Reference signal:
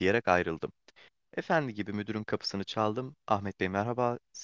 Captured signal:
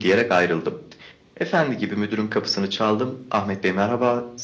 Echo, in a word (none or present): present